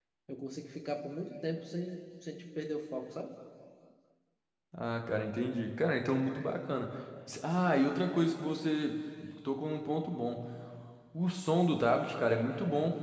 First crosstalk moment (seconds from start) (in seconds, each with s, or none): none